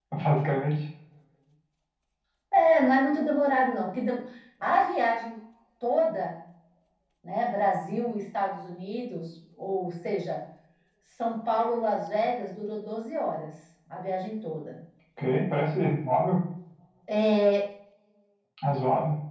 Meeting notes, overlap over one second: none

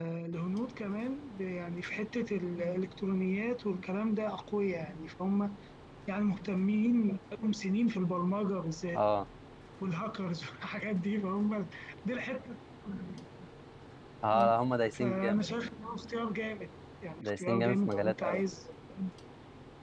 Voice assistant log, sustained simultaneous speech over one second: present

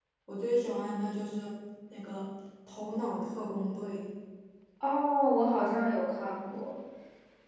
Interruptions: none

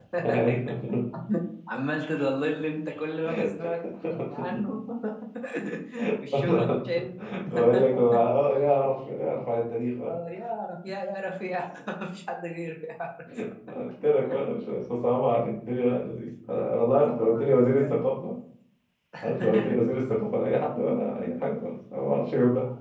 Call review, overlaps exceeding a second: present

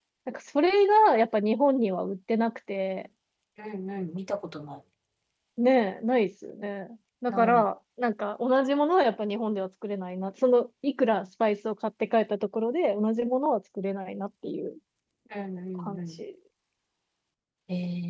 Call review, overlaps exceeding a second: none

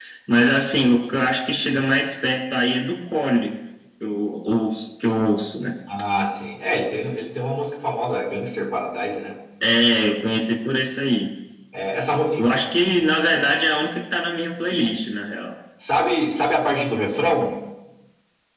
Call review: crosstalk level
none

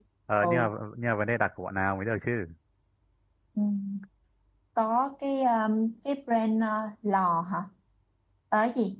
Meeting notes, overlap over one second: none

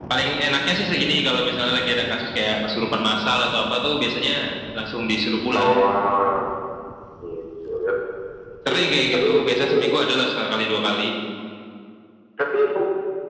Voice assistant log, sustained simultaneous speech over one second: present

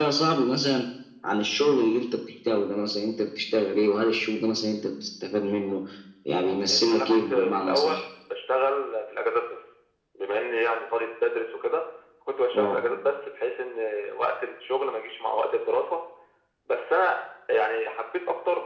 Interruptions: present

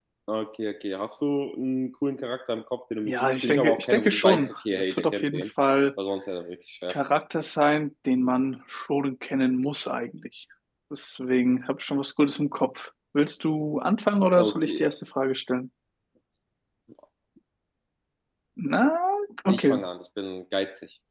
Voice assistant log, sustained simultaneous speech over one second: present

